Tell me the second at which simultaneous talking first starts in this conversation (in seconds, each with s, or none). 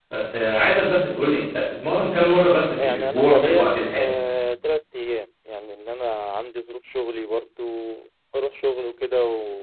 2.8 s